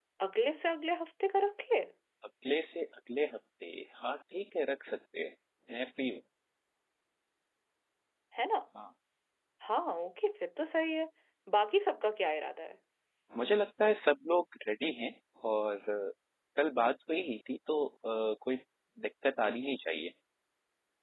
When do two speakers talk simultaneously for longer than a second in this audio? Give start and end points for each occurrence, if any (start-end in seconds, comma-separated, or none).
none